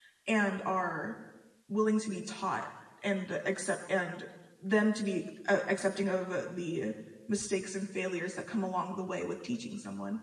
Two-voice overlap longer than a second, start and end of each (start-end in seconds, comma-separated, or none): none